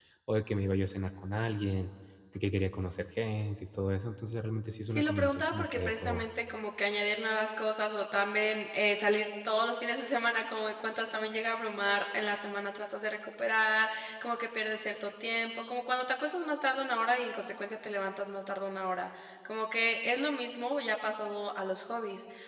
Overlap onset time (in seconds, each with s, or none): 4.9 s